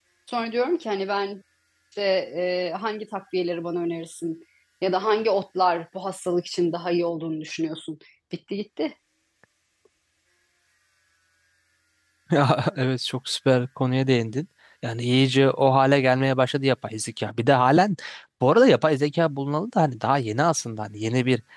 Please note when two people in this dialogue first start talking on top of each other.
none

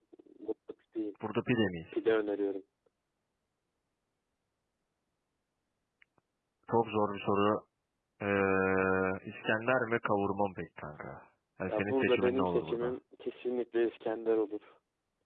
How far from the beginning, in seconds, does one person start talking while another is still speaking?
11.7 s

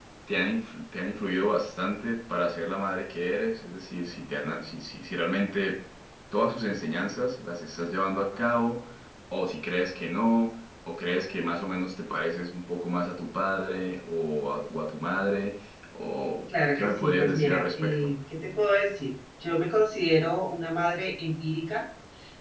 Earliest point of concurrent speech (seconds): 16.7 s

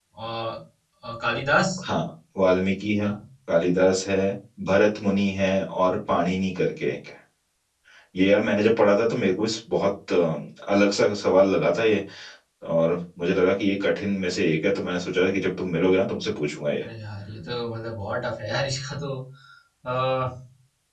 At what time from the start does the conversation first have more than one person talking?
none

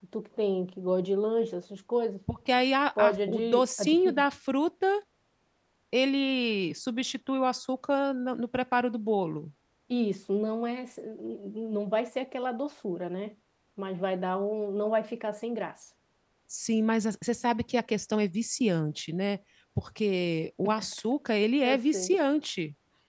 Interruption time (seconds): 3.0 s

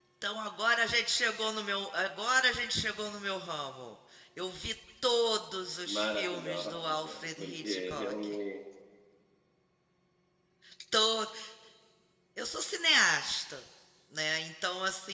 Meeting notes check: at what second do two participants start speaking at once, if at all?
5.9 s

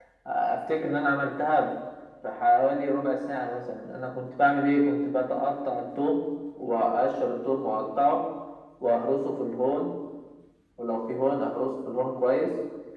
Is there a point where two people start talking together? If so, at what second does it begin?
none

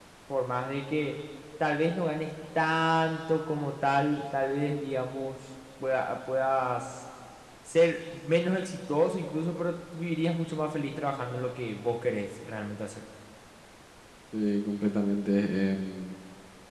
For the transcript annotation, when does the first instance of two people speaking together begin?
none

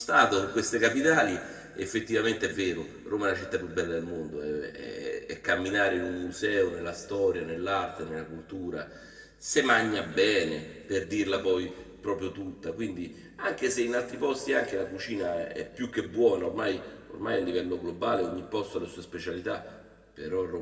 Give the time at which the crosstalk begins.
none

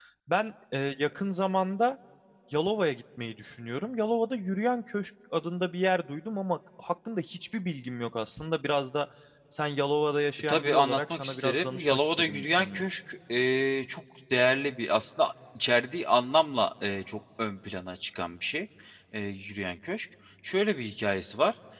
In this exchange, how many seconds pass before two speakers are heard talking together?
10.5 s

